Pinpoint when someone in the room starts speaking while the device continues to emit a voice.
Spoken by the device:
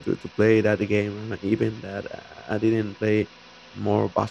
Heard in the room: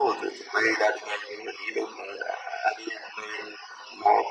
none

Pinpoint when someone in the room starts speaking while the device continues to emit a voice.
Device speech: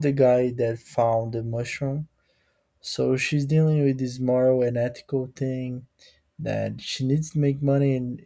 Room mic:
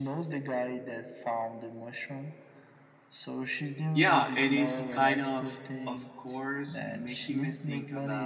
3.9 s

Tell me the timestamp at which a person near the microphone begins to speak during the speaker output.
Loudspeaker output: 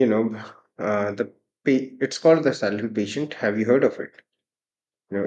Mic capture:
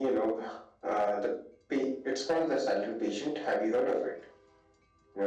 none

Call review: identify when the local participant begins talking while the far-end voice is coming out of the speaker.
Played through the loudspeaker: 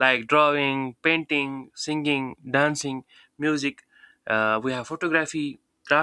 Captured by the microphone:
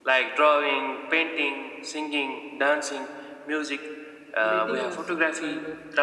4.4 s

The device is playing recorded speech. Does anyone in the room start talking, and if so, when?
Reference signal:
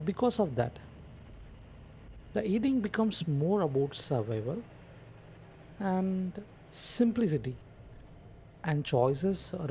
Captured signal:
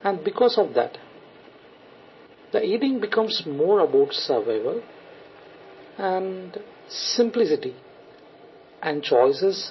none

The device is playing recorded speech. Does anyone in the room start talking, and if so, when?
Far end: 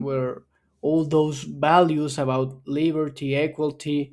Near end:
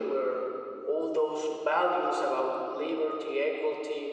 none

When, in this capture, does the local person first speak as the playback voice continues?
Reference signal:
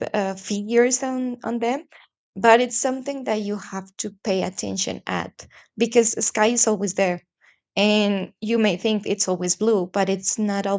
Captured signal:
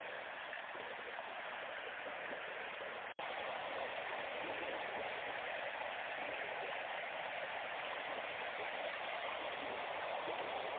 none

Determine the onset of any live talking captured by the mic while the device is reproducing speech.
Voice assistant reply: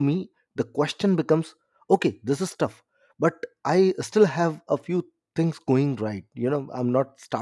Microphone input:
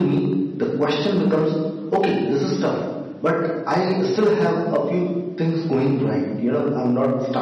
none

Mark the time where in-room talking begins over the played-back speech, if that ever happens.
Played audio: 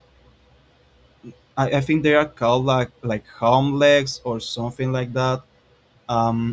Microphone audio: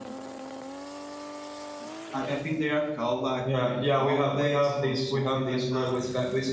3.4 s

